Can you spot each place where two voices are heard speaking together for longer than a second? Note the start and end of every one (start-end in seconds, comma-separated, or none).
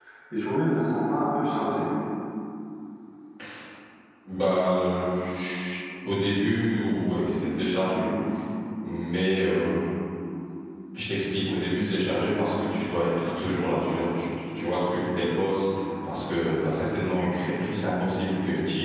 none